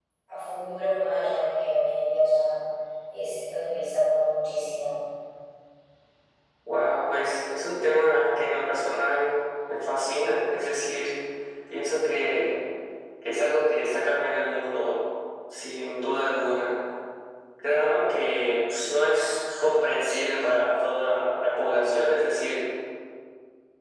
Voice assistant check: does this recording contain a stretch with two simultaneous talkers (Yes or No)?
No